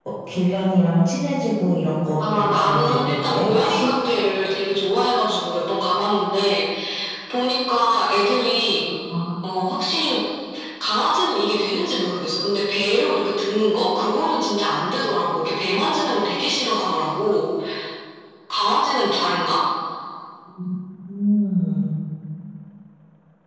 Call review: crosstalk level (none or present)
present